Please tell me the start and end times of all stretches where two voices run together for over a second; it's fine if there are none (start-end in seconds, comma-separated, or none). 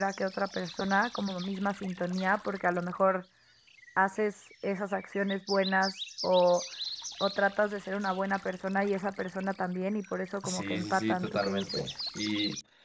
10.4-11.9